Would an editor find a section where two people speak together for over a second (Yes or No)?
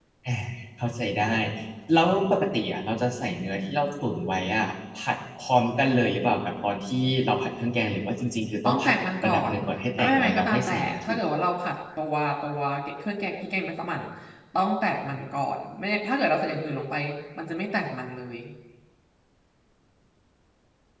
Yes